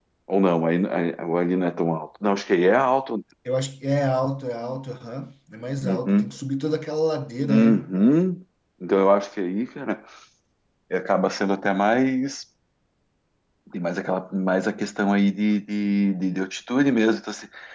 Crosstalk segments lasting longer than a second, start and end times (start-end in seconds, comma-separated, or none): none